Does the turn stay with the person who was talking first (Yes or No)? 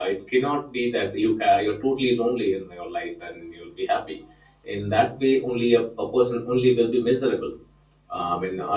Yes